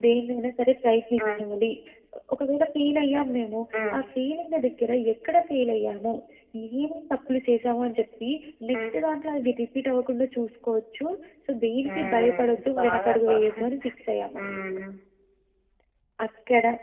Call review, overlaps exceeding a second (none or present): present